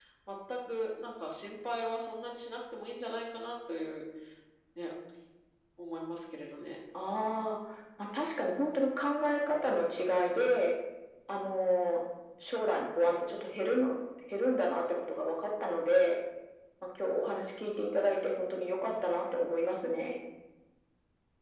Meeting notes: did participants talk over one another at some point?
No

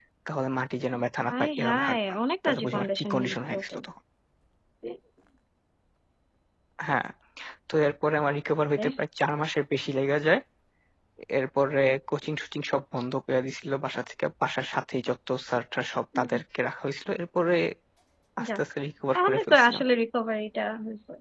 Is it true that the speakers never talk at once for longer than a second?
No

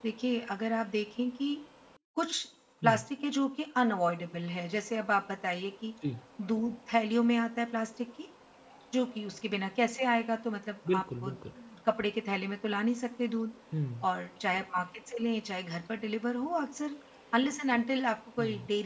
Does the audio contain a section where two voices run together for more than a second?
No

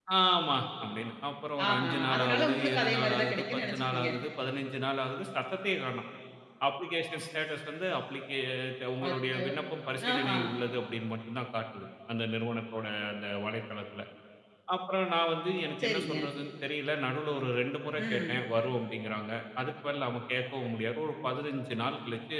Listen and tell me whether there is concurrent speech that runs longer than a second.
Yes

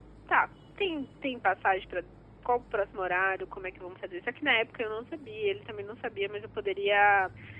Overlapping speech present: No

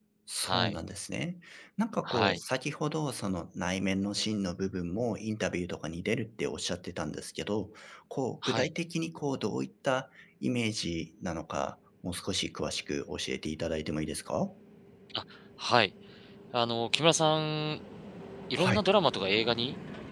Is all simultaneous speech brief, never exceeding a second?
Yes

